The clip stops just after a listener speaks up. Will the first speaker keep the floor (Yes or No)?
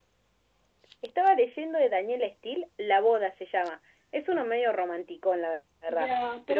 No